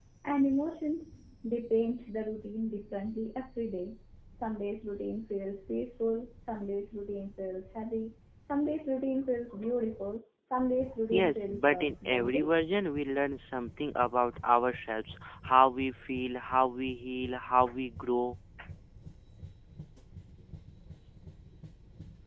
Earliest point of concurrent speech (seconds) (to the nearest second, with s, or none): 11 s